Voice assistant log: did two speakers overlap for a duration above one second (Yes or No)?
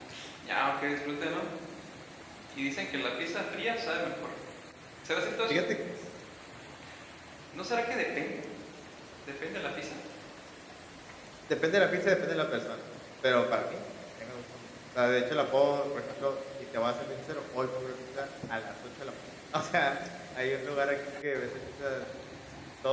No